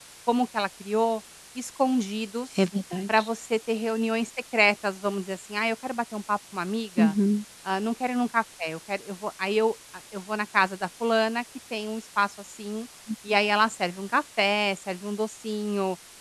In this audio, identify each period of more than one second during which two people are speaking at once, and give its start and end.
none

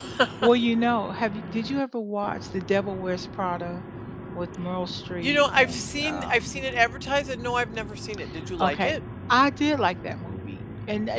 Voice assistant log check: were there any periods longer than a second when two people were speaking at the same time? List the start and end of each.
5.2-6.6

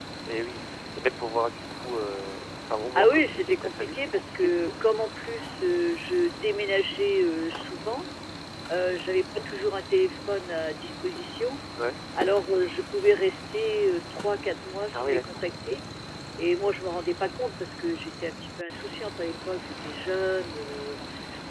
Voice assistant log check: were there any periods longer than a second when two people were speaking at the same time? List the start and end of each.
3.0-4.7

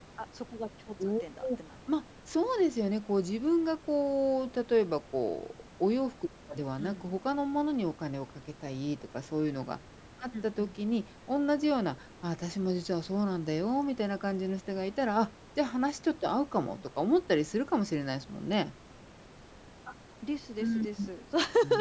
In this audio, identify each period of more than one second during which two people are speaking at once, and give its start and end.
none

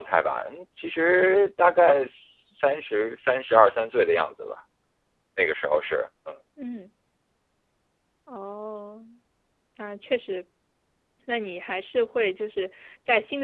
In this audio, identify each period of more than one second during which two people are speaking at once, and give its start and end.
none

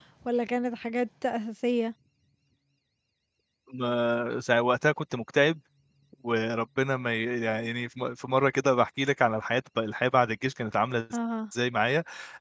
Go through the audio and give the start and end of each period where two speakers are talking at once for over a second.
none

